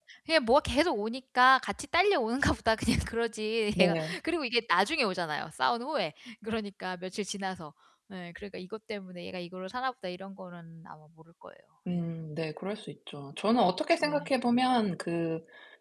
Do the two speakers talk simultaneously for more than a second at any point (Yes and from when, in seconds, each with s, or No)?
No